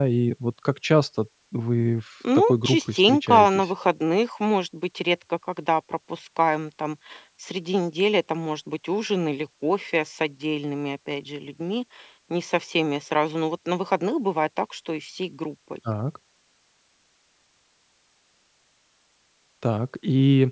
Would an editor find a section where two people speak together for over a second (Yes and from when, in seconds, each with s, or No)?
Yes, from 2.2 s